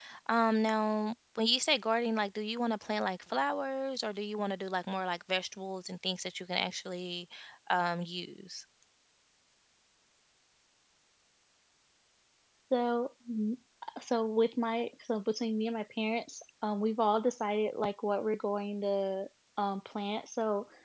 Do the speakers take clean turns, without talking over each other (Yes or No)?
Yes